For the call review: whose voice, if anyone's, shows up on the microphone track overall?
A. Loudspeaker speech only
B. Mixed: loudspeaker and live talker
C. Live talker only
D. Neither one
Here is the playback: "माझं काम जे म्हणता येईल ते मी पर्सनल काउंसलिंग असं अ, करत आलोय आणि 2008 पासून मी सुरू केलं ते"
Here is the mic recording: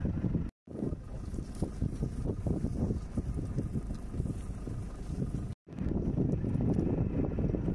D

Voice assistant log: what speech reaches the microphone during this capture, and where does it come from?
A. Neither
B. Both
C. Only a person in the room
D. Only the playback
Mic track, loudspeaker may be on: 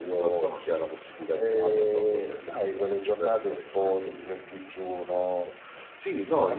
B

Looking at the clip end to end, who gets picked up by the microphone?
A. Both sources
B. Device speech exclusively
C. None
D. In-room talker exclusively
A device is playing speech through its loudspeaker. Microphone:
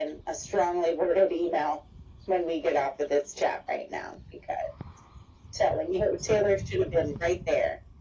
B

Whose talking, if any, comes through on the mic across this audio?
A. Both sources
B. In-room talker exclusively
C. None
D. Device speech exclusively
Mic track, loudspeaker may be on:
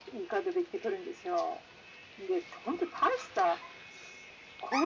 D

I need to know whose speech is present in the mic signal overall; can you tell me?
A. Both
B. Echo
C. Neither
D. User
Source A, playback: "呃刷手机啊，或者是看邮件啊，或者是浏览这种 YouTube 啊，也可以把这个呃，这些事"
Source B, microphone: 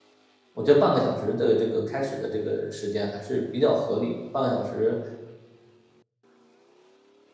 D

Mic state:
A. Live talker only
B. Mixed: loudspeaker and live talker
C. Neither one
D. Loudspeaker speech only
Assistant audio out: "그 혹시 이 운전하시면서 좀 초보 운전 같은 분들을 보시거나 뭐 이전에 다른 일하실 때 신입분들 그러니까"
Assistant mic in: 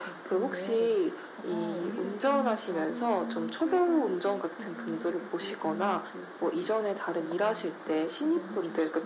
B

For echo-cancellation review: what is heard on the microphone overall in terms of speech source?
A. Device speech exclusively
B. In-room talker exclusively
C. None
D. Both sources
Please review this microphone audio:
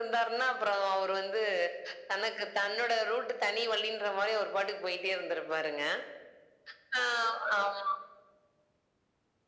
A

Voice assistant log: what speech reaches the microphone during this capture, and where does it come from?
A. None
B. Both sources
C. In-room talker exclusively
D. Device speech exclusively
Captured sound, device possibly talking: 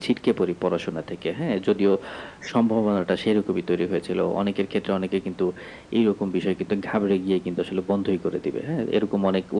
D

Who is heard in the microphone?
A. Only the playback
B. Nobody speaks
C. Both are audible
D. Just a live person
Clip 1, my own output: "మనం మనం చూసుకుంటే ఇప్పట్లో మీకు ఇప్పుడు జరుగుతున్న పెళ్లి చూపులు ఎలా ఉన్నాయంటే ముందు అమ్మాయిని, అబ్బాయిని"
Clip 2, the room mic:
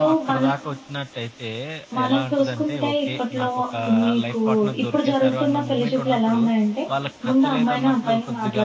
C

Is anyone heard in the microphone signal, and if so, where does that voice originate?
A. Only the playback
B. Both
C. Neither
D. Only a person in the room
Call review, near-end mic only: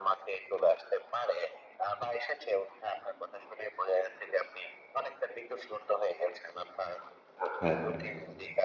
B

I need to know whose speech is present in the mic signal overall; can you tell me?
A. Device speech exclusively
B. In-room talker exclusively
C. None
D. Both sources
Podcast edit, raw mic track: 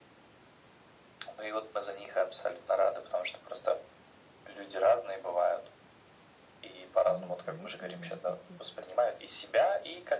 D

